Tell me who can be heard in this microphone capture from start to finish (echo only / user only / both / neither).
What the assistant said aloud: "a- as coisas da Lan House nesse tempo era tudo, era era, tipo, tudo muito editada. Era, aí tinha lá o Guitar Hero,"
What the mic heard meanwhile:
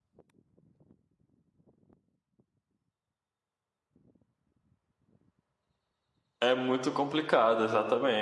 user only